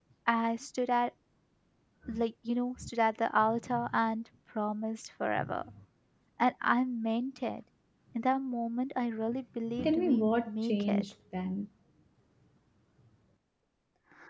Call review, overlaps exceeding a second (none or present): present